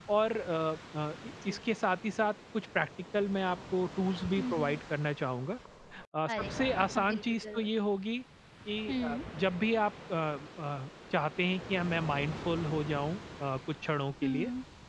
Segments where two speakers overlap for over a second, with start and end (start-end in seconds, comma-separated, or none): 6.3-7.7